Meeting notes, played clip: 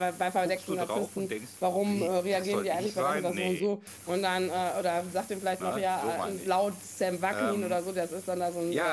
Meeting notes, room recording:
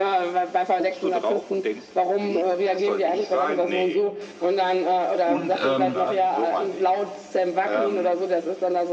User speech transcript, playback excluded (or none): Und ähm,